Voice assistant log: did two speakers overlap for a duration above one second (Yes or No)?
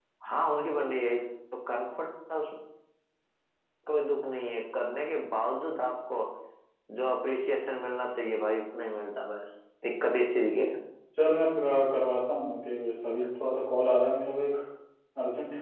No